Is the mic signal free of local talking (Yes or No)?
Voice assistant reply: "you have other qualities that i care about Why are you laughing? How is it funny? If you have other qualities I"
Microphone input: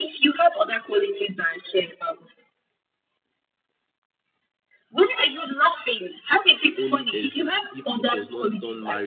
No